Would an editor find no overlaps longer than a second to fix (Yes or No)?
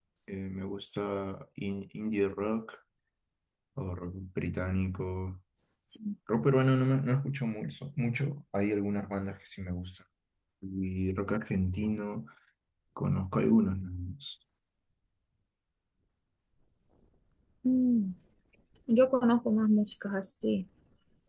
Yes